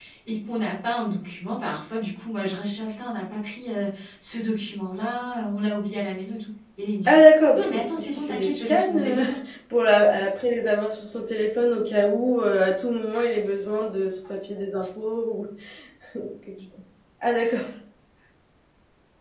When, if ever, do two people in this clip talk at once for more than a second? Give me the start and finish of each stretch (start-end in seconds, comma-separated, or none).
7.5-9.2